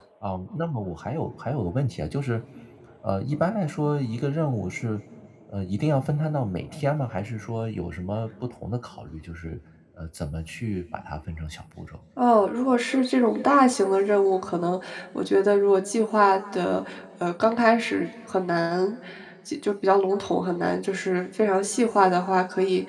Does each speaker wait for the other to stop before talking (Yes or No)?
Yes